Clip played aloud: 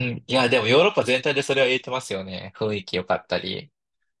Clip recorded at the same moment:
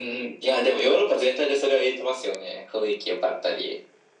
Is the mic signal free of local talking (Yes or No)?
Yes